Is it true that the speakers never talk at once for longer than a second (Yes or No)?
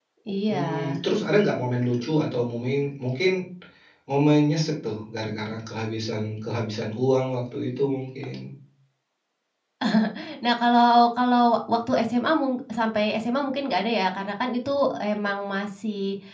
Yes